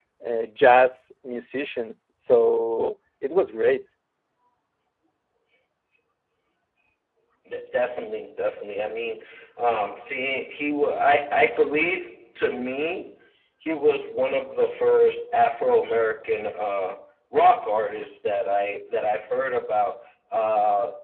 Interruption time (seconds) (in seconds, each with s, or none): none